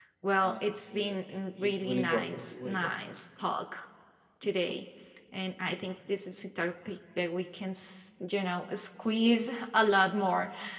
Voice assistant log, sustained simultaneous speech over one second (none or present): present